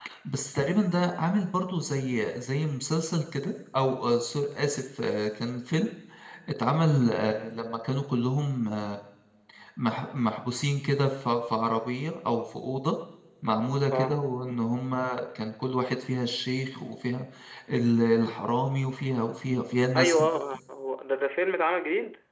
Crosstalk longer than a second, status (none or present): none